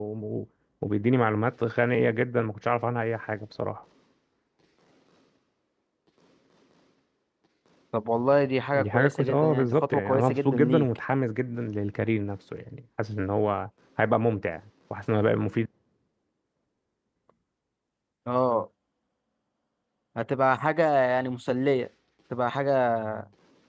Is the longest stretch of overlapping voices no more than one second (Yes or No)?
No